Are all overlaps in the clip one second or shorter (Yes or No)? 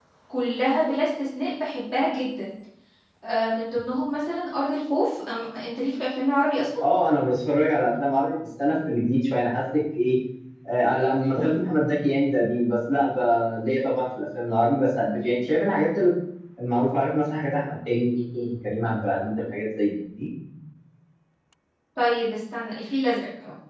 Yes